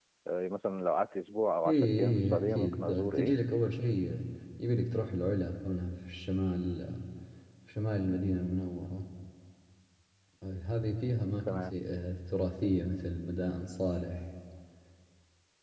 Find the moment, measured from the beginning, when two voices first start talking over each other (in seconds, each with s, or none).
1.7 s